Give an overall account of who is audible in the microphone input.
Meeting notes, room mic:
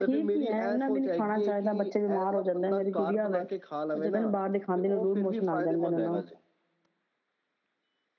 echo only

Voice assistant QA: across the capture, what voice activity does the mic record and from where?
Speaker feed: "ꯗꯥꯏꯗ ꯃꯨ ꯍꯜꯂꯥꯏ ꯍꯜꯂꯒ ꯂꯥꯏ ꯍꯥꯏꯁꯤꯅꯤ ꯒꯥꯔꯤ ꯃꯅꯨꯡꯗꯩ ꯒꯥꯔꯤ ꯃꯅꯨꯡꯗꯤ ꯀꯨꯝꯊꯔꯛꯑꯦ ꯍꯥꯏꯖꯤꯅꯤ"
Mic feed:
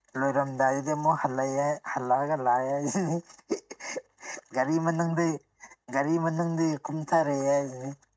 echo only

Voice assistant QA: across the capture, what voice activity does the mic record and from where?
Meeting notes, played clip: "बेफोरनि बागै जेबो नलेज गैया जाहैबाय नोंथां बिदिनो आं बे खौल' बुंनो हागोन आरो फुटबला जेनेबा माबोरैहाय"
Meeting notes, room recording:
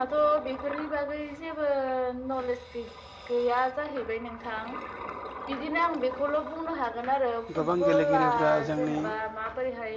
both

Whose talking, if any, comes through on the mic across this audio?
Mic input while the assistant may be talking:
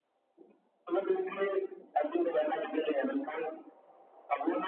echo only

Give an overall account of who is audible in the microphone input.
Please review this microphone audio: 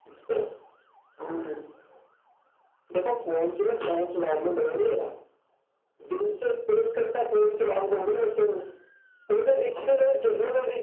echo only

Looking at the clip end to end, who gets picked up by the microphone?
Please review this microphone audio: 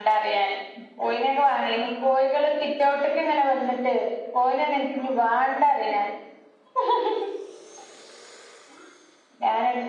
user only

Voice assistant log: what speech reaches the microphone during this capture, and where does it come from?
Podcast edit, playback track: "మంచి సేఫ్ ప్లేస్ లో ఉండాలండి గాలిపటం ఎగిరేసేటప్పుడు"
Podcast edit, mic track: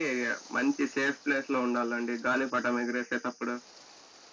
echo only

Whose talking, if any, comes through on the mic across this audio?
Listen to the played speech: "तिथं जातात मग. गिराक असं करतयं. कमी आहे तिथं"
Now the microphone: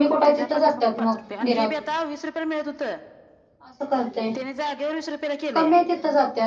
both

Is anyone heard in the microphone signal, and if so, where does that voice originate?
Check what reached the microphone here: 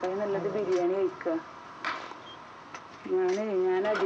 both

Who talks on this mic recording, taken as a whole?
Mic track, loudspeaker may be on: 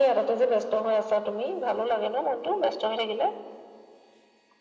echo only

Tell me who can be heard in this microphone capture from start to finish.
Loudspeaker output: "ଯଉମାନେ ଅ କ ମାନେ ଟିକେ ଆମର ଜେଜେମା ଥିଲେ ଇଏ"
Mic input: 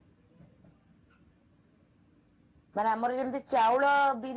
user only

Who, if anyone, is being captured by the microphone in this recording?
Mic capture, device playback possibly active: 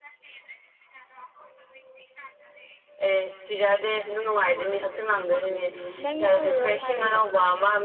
both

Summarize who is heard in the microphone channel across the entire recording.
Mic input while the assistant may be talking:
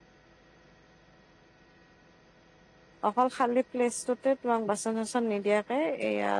user only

